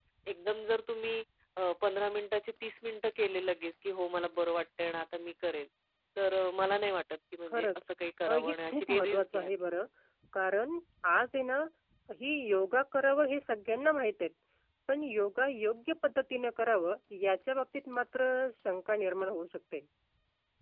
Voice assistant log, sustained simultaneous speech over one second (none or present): present